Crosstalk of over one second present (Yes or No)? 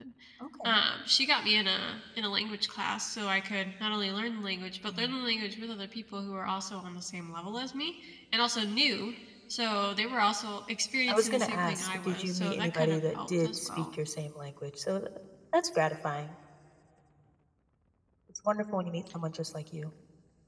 Yes